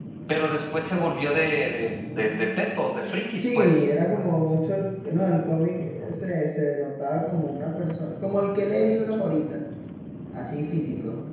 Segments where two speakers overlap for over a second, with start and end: none

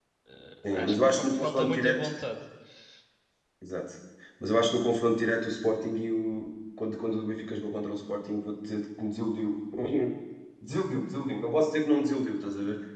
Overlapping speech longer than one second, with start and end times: 0.6-2.1

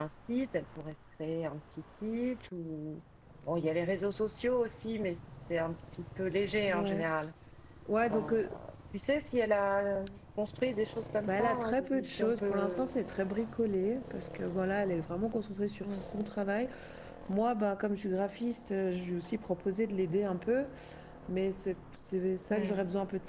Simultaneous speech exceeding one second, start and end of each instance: 11.3-12.9

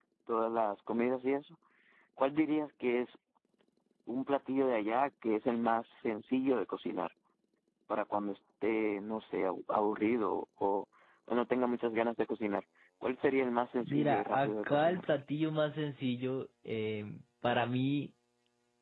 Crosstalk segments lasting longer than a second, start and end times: 13.8-15.0

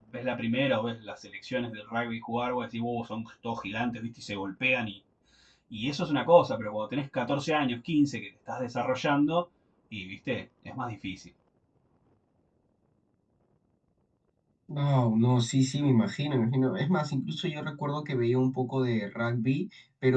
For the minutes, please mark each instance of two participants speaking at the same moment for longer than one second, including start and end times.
none

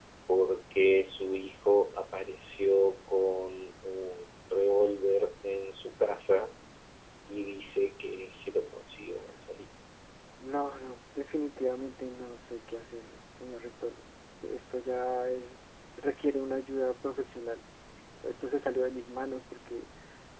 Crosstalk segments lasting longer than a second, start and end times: none

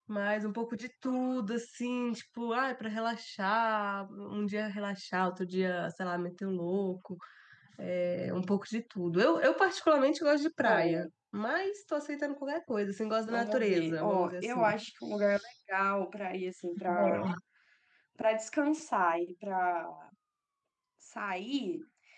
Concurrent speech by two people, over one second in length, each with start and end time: 13.3-14.6

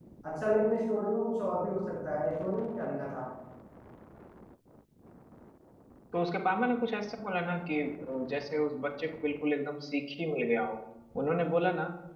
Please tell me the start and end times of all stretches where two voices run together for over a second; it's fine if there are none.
none

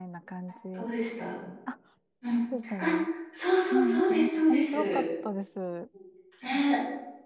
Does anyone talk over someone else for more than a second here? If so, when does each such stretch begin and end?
3.7-5.0

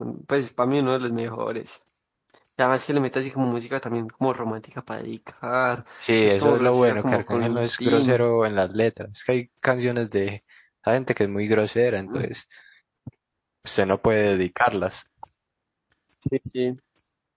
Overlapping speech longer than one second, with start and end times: 6.2-8.3

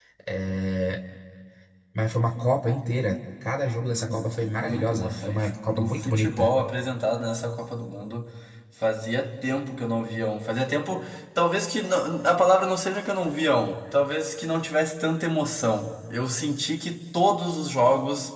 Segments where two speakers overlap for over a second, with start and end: 3.9-6.5

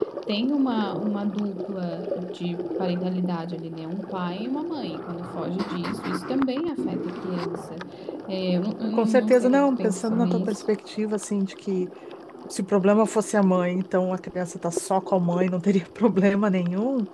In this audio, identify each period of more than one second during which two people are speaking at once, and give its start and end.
8.9-10.6

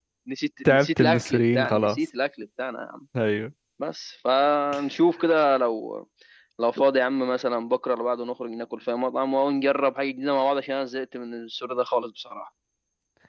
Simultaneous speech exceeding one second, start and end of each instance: 0.6-2.0

